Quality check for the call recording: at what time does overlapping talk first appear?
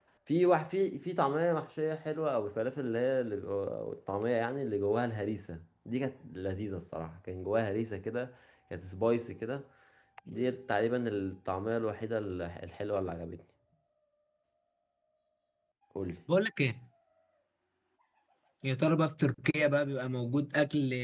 none

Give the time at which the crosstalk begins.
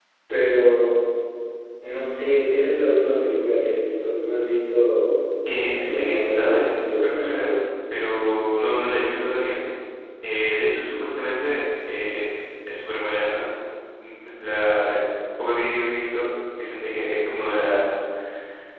5.5 s

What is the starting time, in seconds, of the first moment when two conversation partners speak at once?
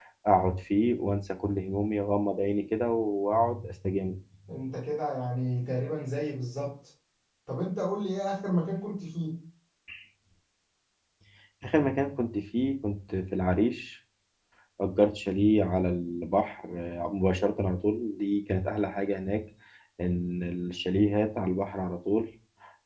none

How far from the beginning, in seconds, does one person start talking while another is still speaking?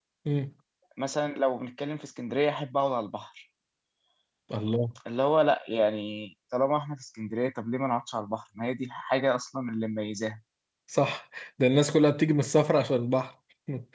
none

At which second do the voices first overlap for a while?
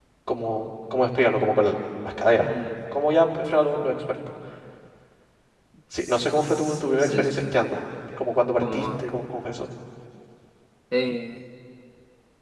6.0 s

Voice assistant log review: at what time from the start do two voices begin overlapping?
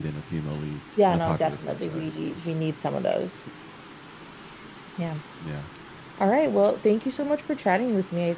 1.1 s

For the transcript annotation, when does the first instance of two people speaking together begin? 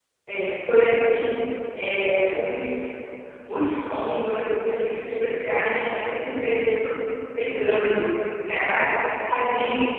none

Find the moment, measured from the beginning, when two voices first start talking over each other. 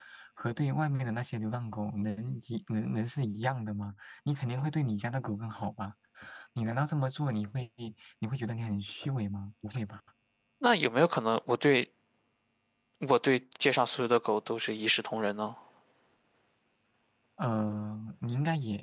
none

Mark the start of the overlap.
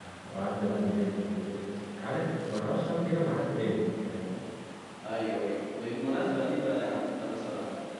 none

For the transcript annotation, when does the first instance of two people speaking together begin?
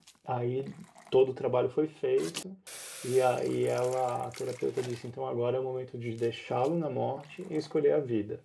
none

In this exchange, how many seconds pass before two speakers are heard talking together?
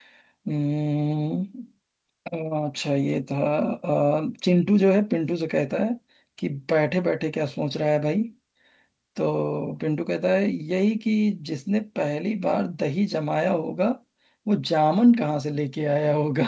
none

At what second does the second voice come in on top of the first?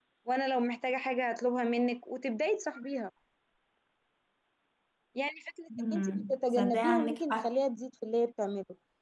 5.9 s

